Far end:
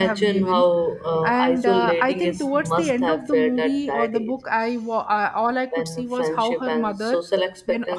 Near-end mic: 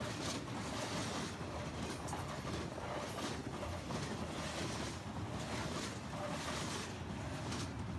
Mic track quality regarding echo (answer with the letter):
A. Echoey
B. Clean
B